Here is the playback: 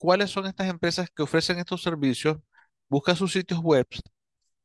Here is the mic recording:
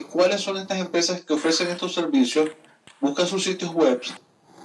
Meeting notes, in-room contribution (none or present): none